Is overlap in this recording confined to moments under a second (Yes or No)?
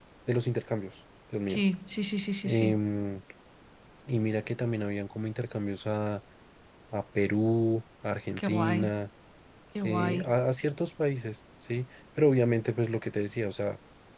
Yes